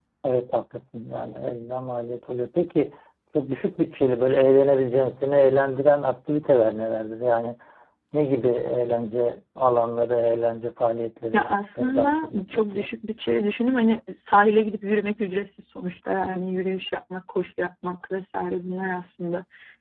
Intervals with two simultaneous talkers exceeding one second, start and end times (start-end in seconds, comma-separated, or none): 11.3-12.9